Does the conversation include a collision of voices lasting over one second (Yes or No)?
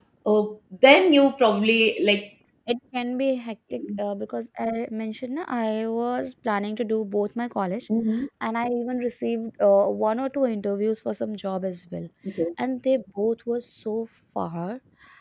No